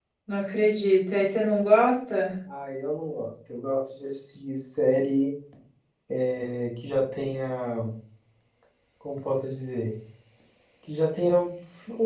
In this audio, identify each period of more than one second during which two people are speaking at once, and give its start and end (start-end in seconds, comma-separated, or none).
none